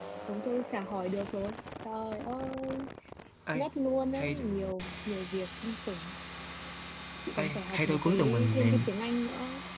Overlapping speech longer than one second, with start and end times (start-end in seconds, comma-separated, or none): 7.4-8.7